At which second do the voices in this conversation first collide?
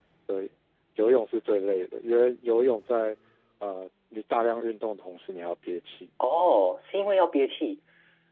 none

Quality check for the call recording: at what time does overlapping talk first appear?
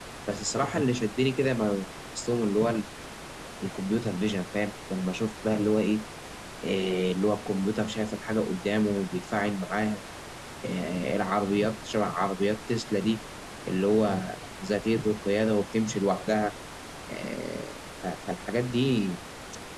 none

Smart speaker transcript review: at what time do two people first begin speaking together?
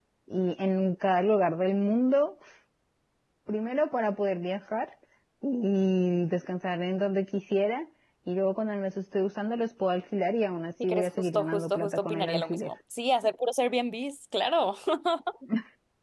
10.8 s

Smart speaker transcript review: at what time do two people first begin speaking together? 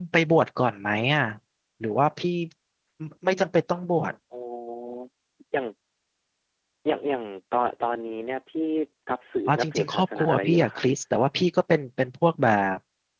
9.5 s

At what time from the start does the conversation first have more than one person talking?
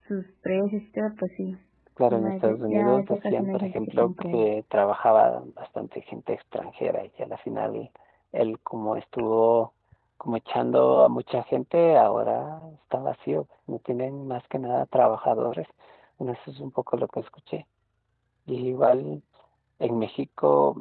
2.1 s

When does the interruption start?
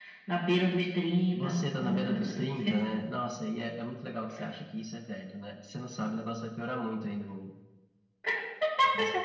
1.3 s

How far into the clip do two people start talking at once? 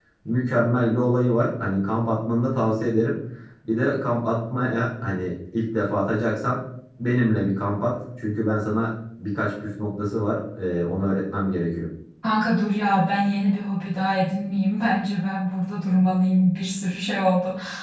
none

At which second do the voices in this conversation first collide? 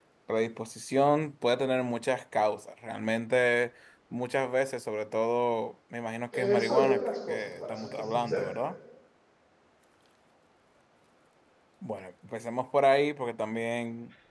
6.3 s

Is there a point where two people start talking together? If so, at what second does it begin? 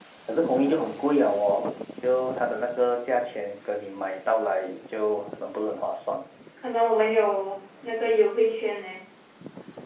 none

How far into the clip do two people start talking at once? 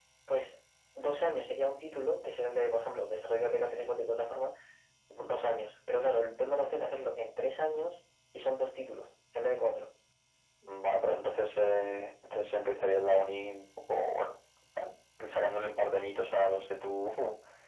none

